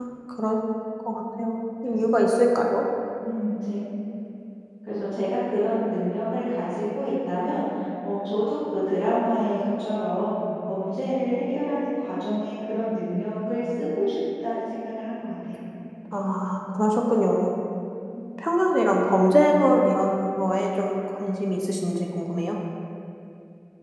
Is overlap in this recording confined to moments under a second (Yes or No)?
Yes